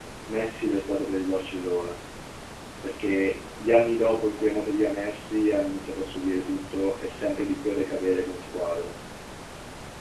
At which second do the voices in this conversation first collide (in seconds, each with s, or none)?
none